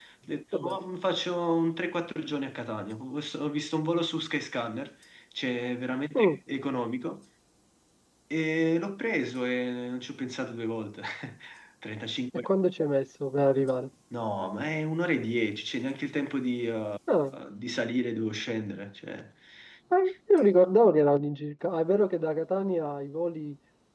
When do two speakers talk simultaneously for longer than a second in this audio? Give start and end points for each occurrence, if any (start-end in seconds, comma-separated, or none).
none